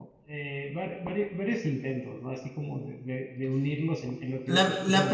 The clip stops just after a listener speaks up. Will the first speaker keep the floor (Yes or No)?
No